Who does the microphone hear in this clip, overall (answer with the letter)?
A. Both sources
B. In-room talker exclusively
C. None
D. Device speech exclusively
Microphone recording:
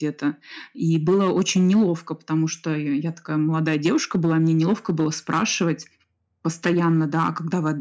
D